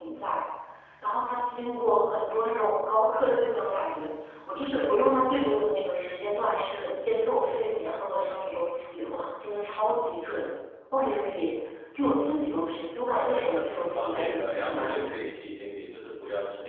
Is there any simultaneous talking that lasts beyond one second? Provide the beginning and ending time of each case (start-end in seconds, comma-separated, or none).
13.3-15.2